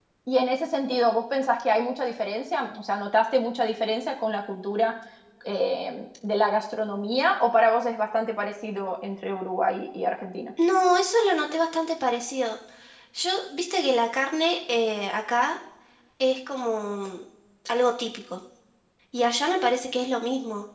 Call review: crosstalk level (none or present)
none